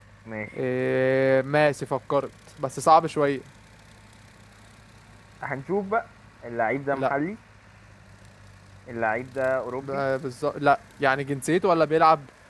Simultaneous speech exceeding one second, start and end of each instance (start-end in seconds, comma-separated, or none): none